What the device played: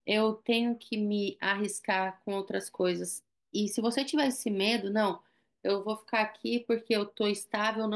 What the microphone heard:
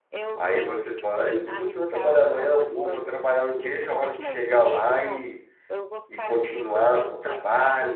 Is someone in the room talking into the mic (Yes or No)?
Yes